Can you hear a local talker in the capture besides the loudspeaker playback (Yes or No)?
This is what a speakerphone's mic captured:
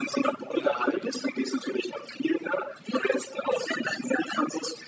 Yes